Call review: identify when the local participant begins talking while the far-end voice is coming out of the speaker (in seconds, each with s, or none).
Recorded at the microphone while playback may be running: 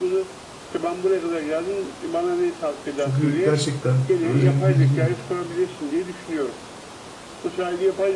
3.0 s